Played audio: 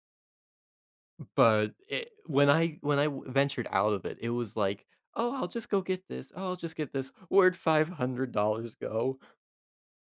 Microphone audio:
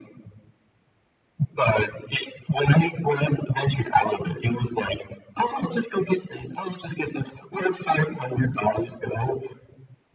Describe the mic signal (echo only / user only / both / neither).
echo only